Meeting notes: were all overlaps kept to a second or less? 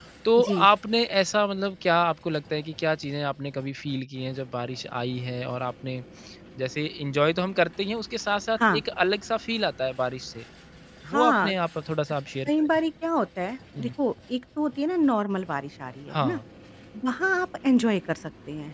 Yes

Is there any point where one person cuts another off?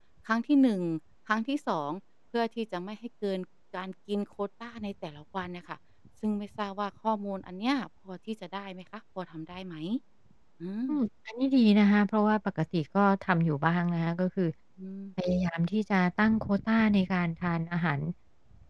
No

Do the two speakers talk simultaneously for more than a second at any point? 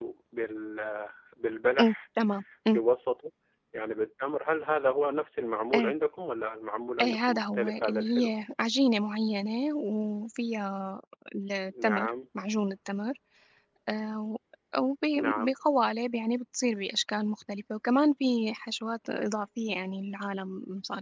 Yes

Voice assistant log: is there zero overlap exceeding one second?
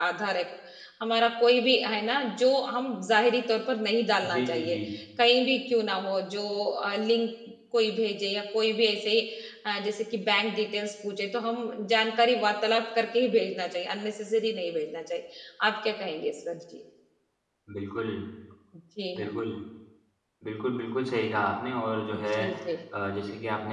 Yes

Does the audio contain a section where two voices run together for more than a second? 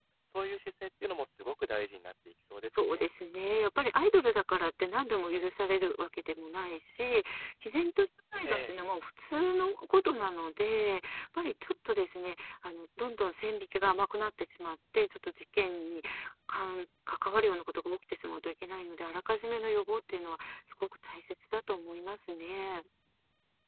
No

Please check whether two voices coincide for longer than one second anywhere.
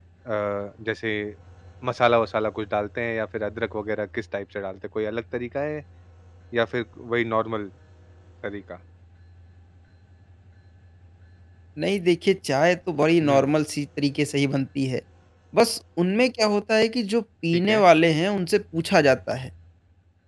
No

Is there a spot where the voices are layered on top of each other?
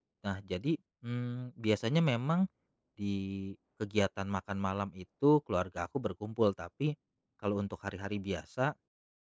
No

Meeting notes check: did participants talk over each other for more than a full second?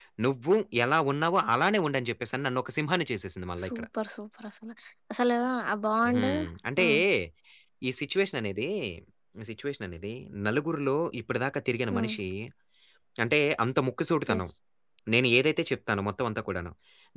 No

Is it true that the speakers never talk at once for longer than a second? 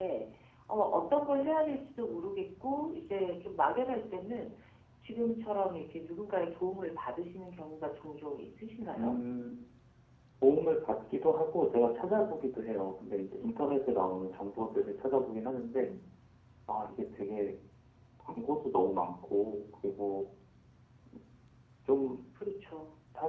Yes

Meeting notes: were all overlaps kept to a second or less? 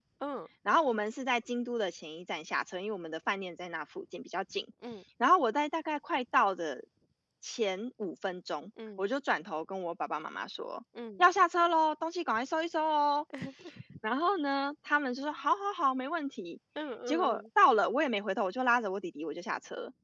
Yes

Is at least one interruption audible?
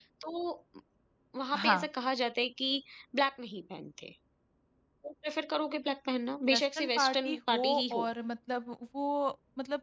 Yes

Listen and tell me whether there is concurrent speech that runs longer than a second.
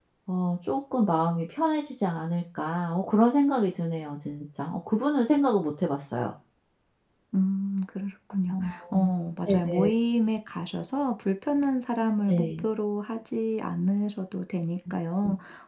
No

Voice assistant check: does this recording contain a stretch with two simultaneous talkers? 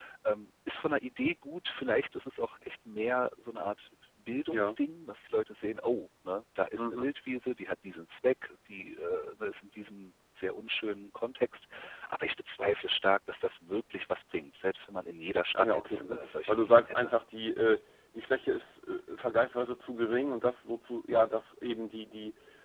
Yes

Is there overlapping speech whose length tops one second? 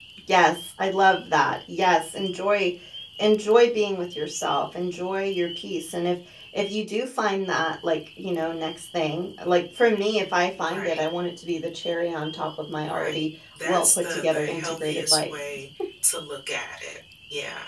Yes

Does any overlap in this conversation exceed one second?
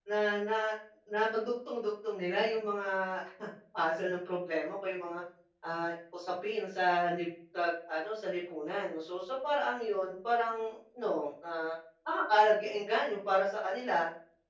No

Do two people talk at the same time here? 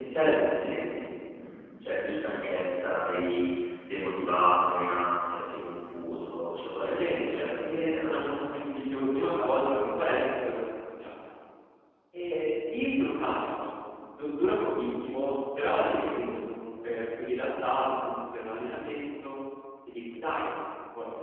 Yes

